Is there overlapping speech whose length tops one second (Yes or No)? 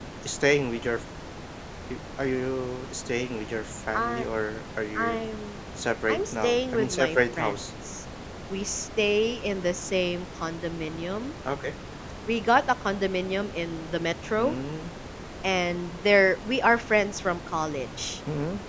Yes